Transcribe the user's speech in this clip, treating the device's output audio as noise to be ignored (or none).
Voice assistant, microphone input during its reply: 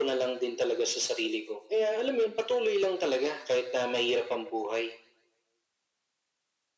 none